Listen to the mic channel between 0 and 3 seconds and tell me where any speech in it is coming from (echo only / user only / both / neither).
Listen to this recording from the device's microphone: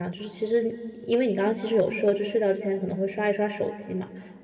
user only